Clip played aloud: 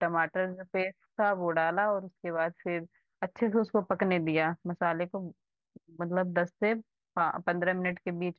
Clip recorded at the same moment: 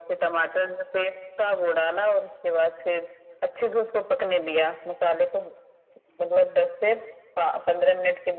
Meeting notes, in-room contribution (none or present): none